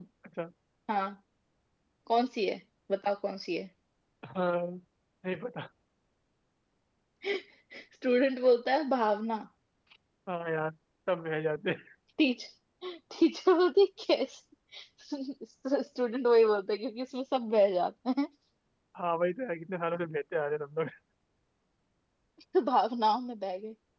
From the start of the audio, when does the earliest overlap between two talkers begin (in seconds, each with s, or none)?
none